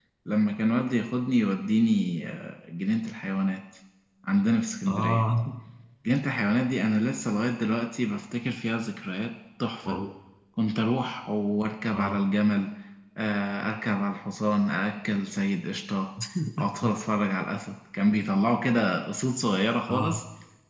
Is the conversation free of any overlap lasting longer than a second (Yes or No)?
Yes